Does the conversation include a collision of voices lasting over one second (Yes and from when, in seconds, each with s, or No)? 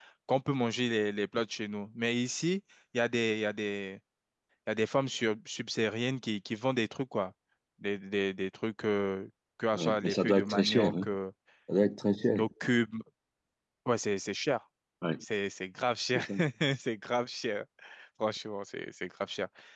Yes, from 9.7 s